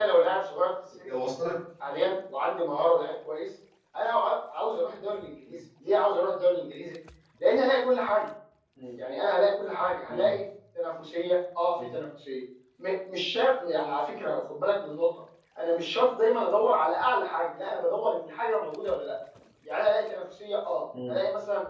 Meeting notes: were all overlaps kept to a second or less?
Yes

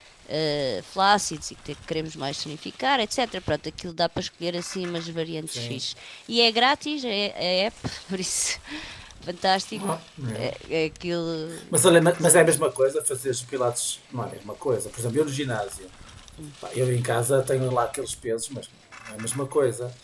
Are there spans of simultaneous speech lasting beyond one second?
No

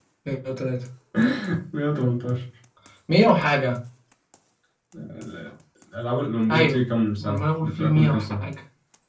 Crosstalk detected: Yes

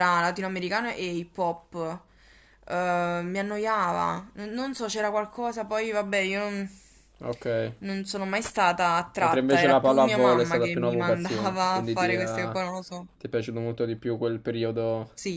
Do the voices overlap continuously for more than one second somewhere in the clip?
Yes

